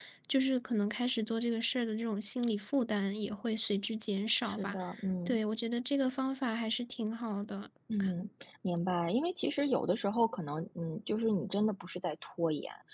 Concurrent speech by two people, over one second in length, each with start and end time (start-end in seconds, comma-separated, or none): none